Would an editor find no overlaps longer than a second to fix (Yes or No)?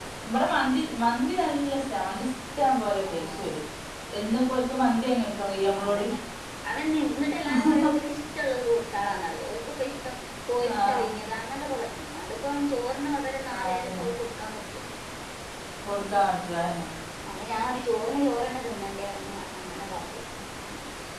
Yes